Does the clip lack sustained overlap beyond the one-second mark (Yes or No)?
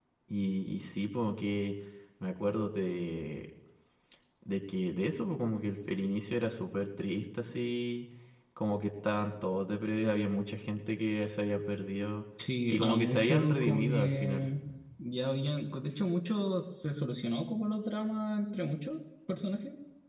No